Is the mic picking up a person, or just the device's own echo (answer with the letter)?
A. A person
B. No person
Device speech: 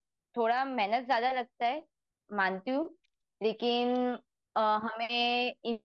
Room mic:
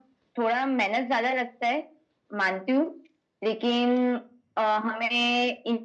B